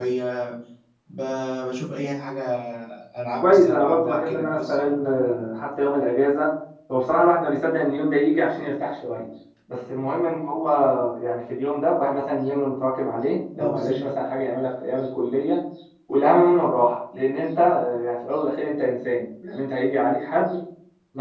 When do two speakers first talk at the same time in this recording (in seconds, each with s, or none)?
3.4 s